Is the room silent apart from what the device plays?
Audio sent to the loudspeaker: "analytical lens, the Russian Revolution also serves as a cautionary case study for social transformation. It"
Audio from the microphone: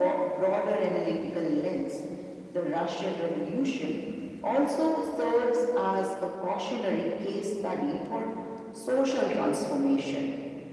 Yes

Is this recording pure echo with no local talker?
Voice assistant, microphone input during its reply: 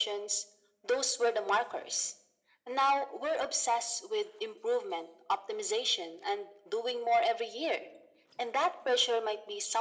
Yes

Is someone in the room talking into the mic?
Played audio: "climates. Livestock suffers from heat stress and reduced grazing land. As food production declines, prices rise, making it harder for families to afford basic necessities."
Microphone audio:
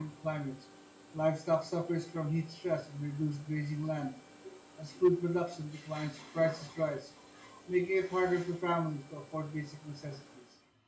No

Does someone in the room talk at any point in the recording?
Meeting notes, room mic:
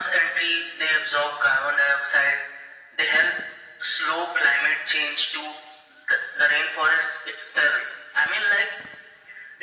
No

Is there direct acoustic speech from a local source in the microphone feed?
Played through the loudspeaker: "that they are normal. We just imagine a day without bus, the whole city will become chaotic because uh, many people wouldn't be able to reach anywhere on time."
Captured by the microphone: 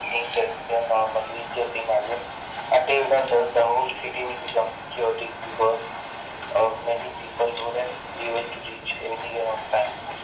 No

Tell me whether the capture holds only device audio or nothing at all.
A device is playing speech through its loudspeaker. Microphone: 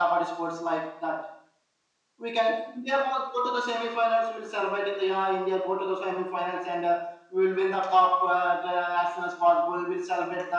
Yes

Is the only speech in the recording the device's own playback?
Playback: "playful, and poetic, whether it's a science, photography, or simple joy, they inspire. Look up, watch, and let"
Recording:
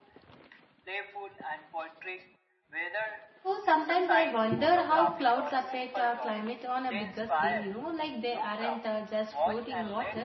No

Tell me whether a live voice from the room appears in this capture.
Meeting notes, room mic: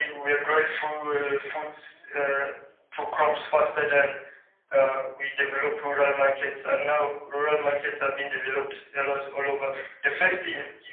No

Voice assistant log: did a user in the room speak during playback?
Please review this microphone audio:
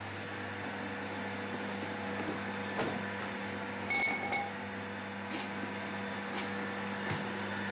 No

